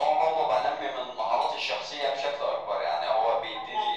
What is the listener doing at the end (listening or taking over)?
listening